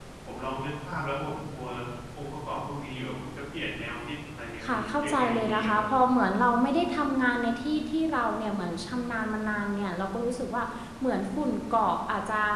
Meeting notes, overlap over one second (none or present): present